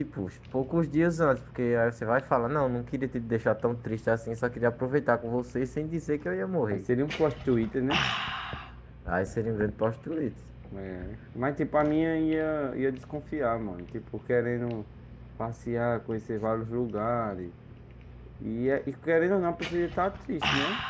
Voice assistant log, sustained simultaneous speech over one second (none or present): none